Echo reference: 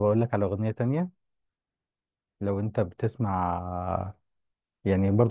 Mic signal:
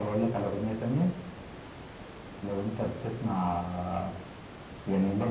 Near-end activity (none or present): none